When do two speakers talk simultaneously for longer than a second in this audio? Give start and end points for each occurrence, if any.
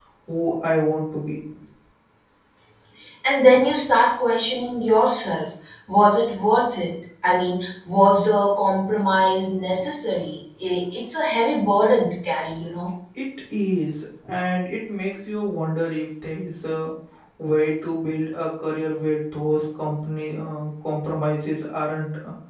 none

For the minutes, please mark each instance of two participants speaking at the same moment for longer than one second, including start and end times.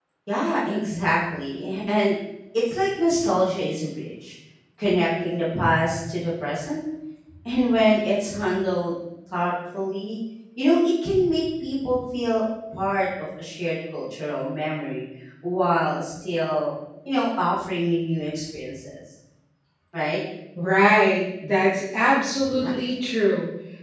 none

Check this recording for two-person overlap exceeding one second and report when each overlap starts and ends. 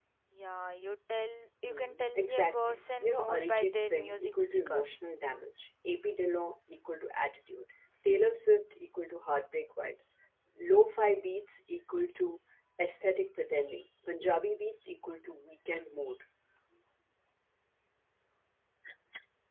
1.6-4.8

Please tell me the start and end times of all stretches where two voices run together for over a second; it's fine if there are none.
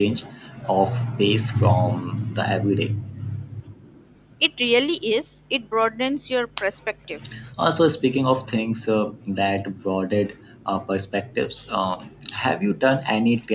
none

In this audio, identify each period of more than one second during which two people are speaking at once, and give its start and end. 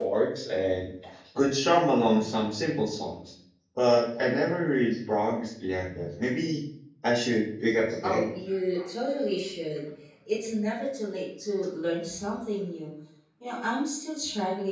none

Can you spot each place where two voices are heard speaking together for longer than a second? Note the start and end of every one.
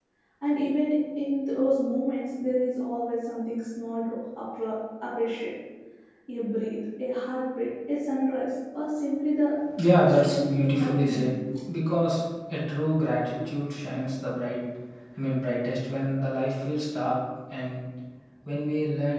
10.1-11.3

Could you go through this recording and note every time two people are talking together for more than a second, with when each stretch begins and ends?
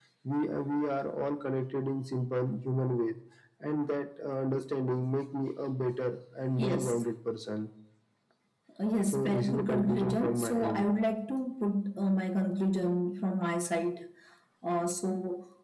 9.1-10.9

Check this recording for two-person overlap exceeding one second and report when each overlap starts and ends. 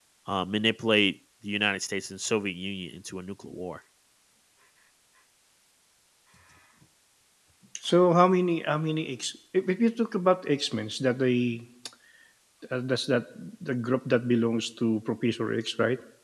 none

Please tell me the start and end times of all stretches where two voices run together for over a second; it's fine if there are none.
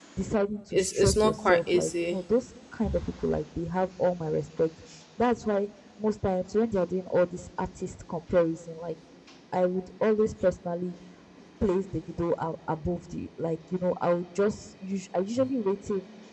0.7-2.2

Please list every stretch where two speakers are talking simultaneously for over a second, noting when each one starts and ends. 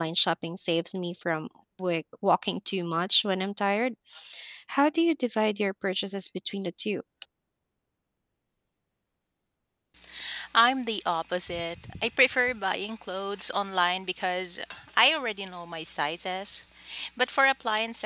none

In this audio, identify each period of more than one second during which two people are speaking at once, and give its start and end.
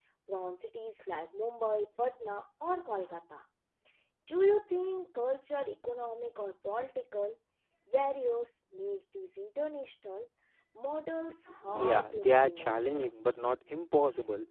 11.7-13.1

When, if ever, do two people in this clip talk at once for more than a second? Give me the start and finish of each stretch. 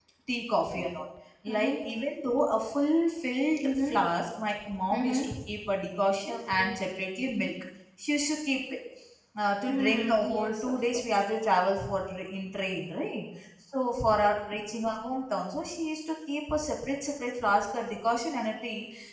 9.7-11.1

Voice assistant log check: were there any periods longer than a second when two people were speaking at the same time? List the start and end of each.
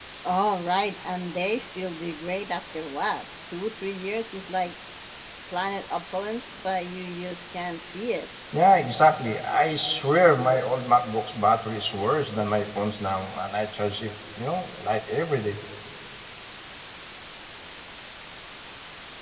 none

